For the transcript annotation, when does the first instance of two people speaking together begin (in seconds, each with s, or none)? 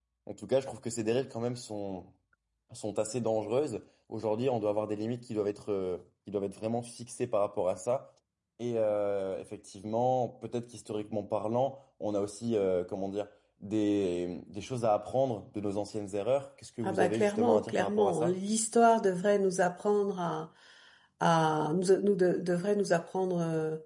16.8 s